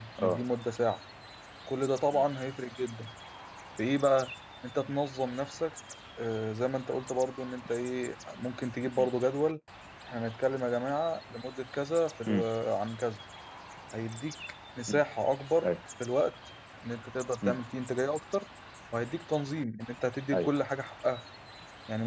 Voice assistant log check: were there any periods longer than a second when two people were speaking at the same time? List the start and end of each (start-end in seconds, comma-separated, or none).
none